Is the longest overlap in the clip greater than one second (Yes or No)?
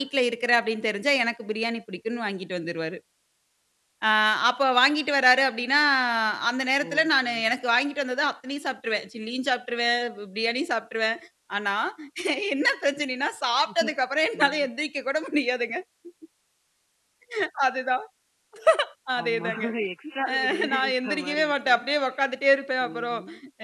Yes